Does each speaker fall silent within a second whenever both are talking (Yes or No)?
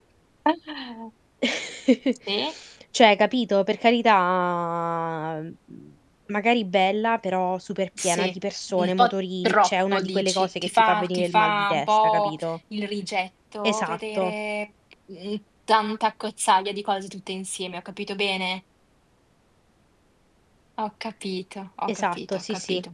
No